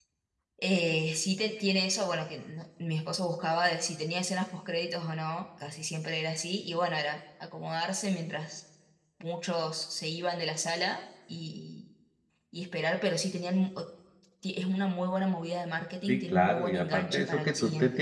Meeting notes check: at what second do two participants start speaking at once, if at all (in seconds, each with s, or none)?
16.1 s